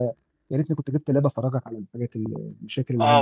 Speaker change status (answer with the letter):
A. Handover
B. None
A